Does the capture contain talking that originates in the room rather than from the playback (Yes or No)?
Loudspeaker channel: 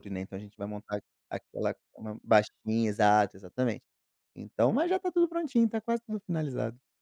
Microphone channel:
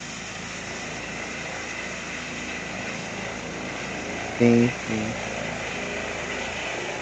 Yes